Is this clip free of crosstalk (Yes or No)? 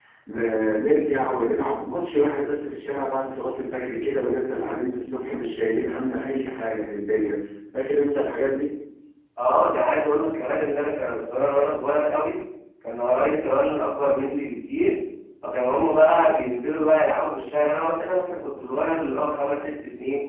Yes